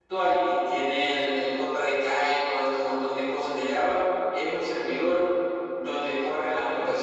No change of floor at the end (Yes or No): Yes